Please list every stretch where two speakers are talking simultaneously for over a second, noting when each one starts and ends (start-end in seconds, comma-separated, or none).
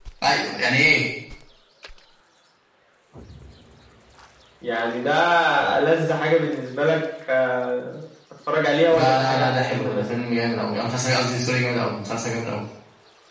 8.9-10.2